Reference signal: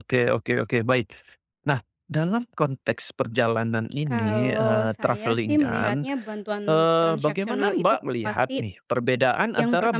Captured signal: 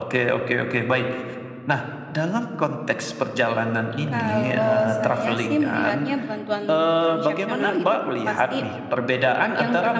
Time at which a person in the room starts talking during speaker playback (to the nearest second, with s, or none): none